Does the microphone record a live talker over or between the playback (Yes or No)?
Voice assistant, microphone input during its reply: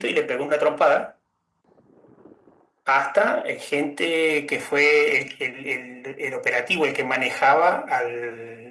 No